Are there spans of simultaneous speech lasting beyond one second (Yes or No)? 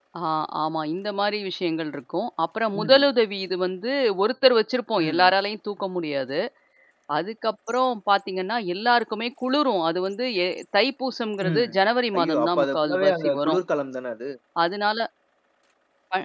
Yes